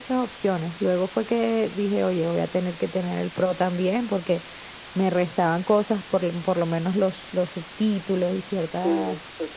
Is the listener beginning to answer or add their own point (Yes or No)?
Yes